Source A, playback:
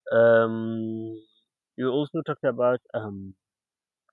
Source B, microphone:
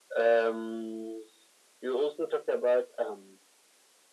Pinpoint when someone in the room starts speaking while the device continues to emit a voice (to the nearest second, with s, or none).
none